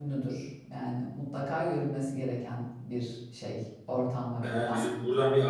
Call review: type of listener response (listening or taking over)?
taking over